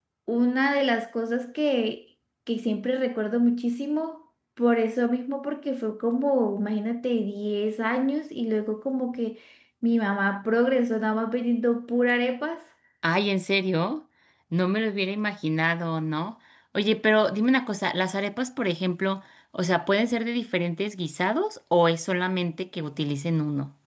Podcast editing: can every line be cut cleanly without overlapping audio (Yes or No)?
Yes